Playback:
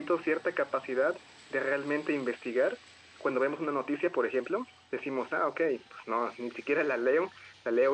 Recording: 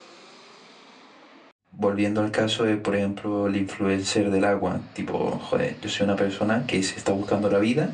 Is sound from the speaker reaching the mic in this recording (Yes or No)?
No